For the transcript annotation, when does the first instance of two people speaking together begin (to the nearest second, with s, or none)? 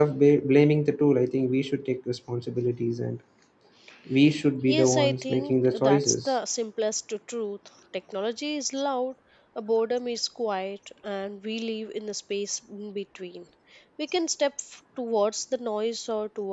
5 s